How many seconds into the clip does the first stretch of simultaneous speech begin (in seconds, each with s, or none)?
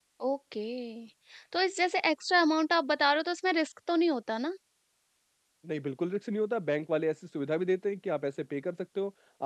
none